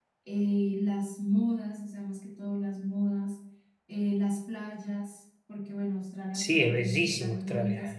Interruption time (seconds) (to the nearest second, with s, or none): 6 s